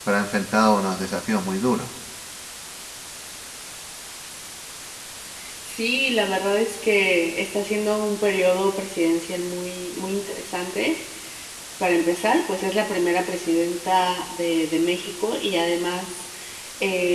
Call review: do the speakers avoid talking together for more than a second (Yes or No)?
Yes